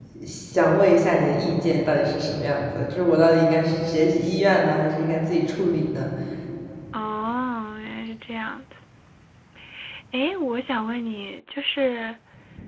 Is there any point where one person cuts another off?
No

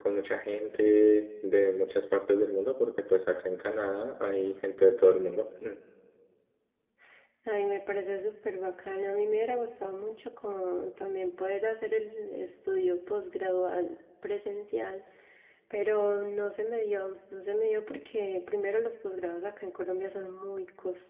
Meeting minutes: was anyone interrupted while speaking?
No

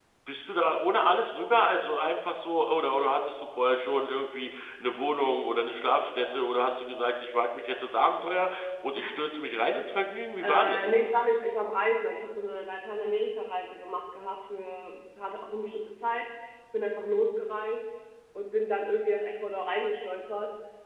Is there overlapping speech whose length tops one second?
No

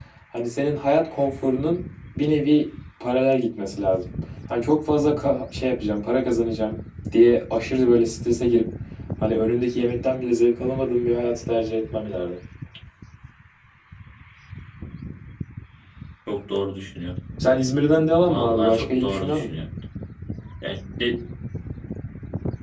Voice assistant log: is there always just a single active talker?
No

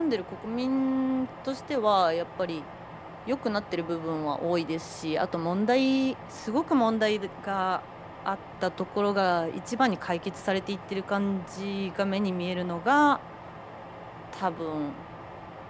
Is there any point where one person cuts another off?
No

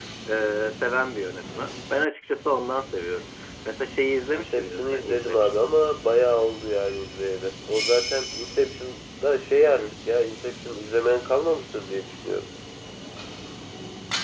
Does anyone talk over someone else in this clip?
Yes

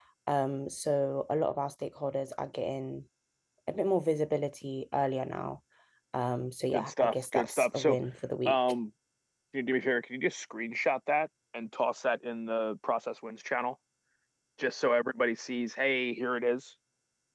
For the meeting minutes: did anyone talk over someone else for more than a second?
Yes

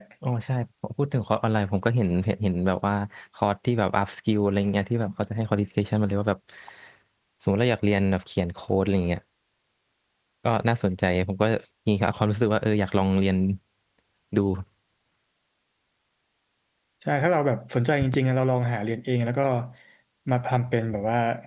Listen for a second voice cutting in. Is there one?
No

